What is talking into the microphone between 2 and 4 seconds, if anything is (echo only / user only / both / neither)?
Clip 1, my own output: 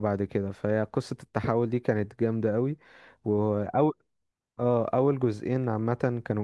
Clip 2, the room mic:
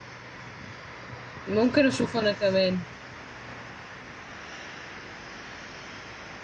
user only